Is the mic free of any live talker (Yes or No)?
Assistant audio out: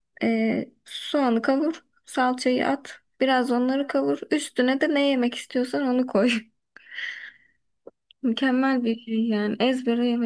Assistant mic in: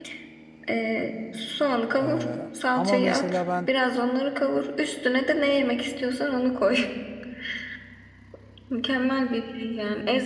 No